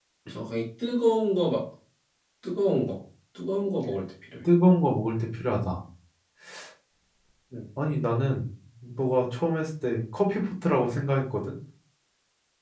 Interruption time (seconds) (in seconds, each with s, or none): none